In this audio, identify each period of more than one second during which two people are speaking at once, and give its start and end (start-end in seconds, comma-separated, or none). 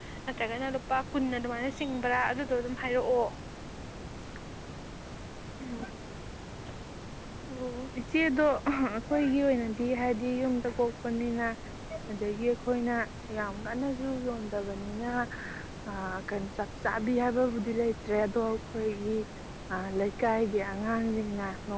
none